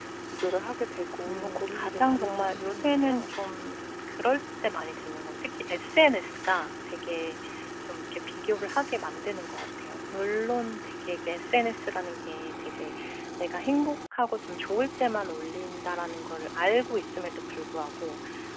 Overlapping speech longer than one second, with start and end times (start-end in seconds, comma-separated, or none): 1.3-3.3